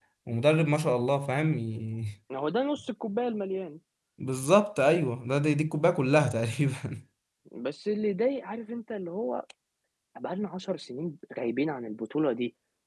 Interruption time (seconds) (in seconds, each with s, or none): none